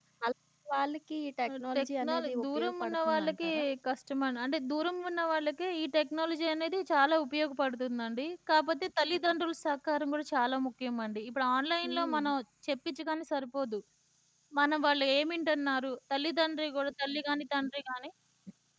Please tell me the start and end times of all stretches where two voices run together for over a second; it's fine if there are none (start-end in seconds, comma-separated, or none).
1.5-3.5